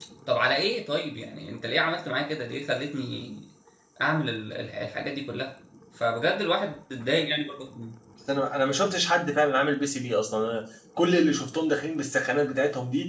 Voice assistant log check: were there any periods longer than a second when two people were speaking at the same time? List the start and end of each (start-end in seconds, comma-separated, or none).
none